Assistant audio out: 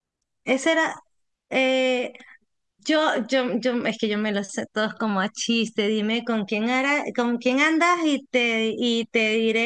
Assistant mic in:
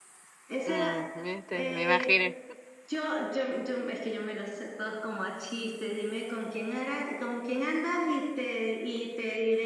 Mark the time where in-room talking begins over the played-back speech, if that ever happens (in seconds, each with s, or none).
0.6 s